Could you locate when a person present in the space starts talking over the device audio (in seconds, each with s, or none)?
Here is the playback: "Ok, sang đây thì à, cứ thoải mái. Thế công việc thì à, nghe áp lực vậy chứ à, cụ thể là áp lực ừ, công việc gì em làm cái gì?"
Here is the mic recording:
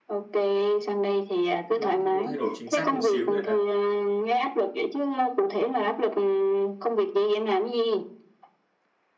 1.7 s